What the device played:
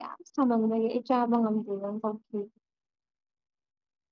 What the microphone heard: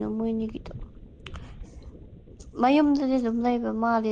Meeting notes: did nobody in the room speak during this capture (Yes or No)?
No